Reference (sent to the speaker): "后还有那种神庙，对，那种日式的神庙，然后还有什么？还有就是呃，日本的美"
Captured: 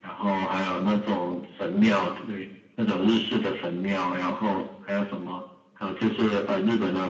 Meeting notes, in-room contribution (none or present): none